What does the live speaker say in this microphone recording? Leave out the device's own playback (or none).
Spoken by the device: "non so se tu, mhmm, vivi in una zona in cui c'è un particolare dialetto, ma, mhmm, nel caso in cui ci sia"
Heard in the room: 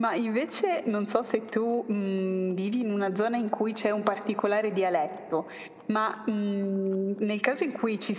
none